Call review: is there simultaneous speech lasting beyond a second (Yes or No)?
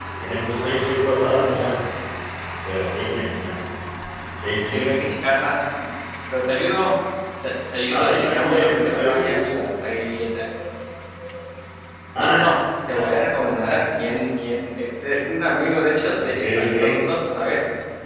Yes